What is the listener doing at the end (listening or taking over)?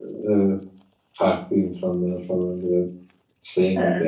taking over